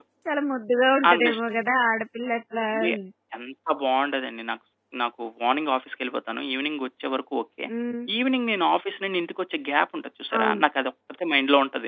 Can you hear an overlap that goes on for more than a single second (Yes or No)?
No